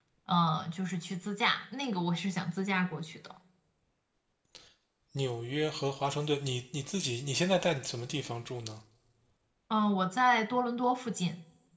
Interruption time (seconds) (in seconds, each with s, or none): none